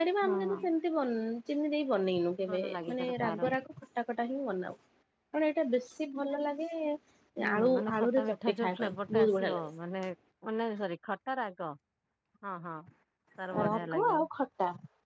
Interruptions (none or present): present